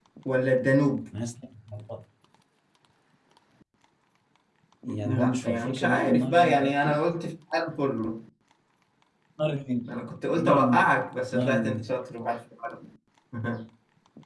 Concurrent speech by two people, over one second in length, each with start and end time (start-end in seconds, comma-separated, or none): 5.0-7.0